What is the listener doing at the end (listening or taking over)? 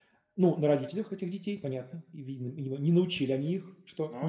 listening